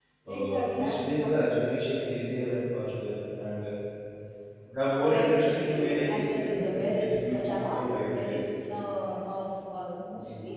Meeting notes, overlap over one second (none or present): present